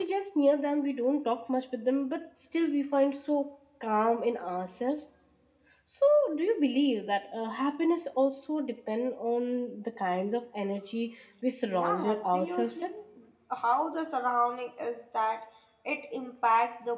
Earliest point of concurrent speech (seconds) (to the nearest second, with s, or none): 12 s